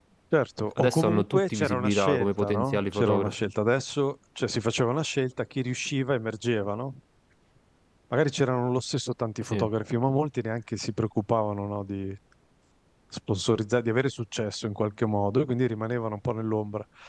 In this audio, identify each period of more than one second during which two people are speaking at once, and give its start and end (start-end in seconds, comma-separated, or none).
0.8-3.3